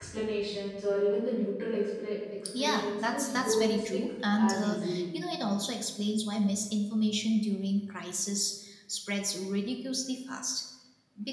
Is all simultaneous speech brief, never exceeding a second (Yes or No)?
No